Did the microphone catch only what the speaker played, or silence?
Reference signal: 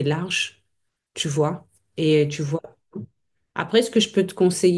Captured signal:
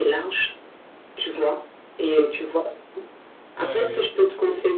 No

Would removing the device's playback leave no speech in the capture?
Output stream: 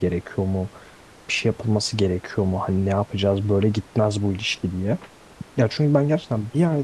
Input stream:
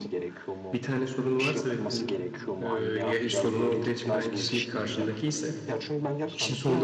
No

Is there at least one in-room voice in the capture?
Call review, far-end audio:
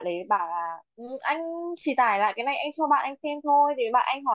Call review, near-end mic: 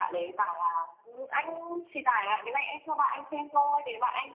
No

